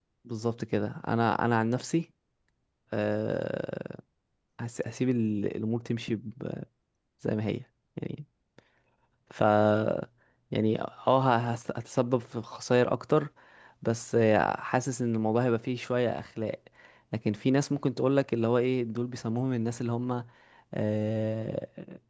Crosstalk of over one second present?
No

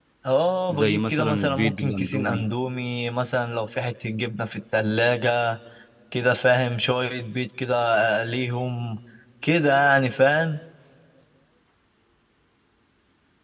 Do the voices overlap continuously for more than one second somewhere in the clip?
Yes, from 0.7 s

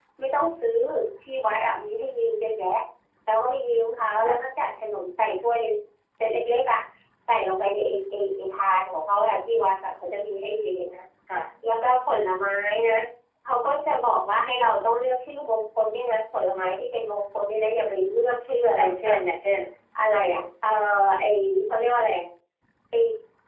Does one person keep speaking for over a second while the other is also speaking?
No

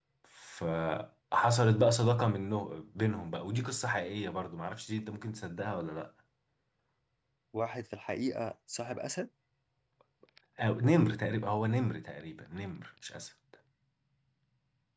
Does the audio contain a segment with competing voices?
No

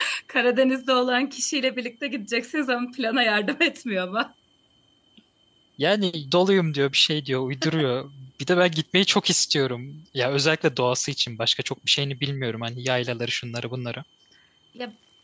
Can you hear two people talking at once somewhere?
No

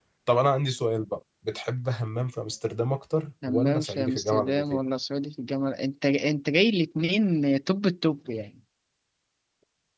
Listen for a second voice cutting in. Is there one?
Yes, from 3.4 s

